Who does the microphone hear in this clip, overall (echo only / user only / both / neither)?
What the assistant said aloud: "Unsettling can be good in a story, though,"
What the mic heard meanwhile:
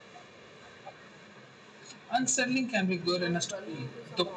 both